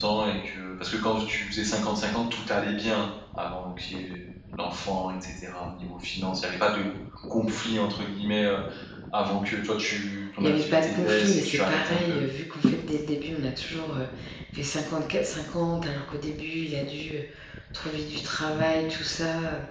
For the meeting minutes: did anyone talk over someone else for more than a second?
Yes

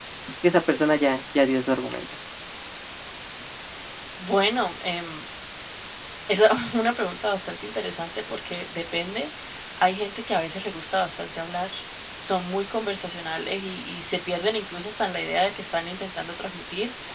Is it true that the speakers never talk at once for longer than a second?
Yes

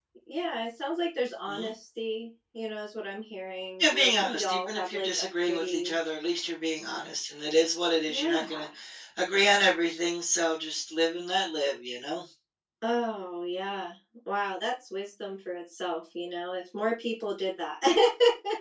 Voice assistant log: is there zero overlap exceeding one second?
No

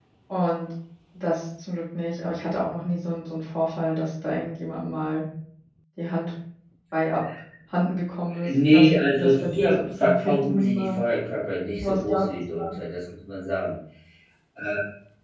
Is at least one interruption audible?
Yes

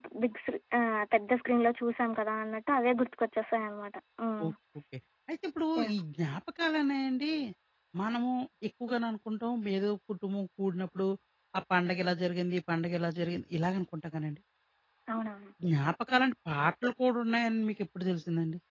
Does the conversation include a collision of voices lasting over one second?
No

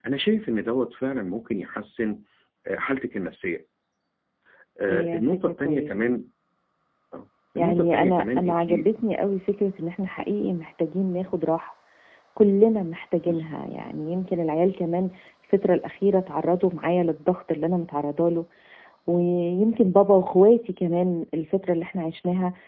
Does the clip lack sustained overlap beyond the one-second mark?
No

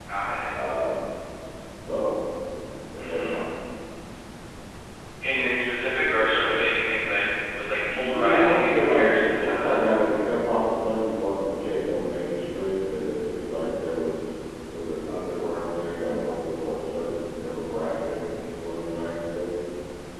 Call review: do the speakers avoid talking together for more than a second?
No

